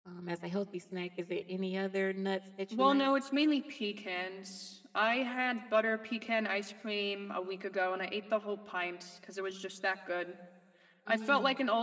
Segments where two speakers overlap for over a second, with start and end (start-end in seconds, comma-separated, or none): none